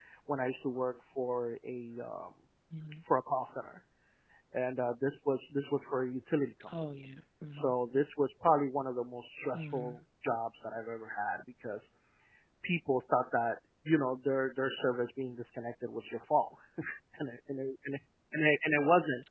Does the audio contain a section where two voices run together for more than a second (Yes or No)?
No